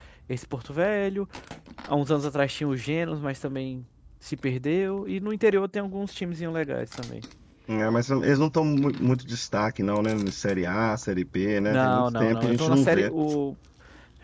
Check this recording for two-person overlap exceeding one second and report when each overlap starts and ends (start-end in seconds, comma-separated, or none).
11.7-13.1